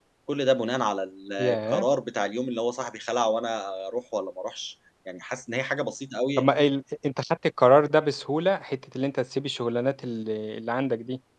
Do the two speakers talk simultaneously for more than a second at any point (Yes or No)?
No